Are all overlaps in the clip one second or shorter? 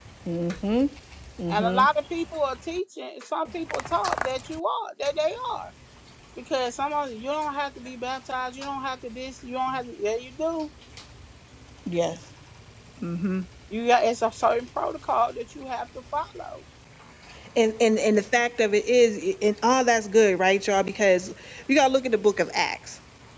Yes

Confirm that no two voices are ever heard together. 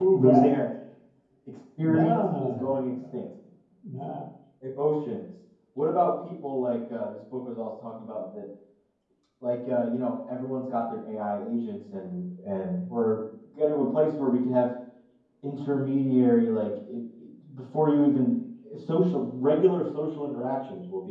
No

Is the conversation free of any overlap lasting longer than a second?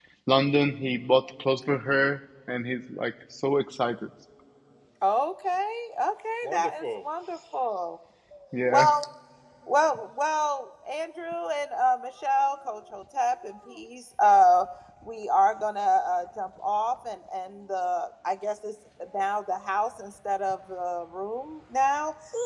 Yes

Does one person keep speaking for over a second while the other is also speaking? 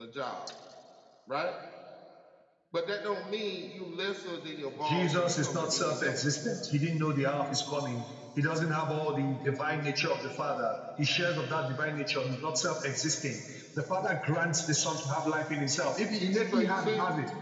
Yes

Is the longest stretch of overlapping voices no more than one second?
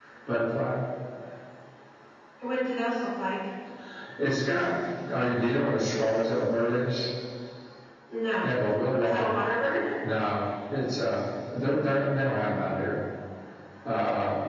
Yes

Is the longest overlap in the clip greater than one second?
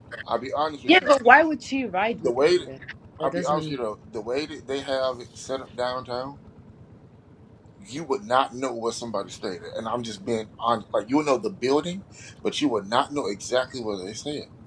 No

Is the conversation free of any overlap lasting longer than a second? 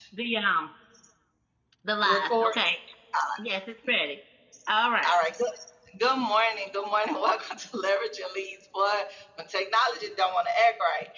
Yes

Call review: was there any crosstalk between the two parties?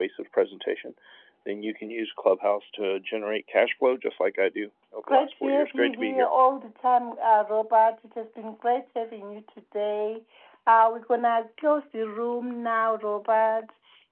Yes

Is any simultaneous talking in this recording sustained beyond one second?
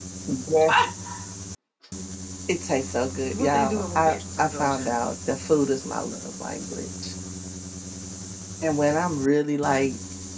Yes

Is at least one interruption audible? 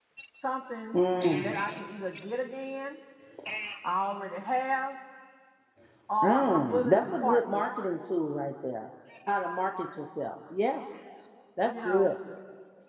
Yes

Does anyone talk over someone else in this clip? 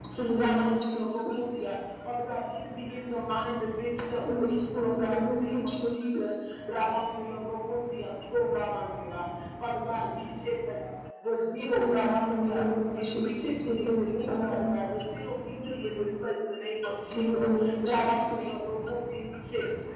Yes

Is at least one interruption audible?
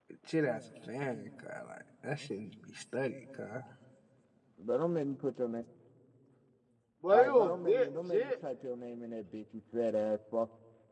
Yes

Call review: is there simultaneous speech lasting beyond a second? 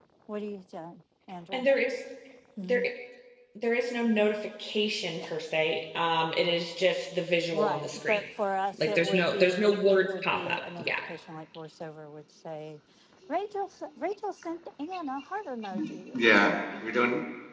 Yes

